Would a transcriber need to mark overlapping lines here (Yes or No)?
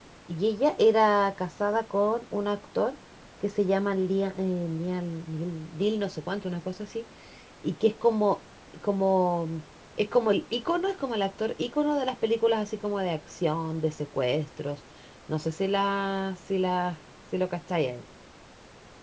No